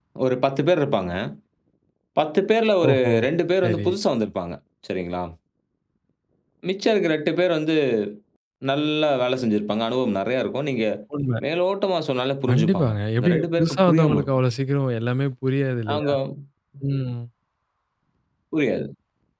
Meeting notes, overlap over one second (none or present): present